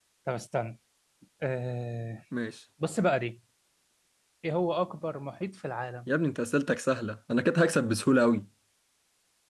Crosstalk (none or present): none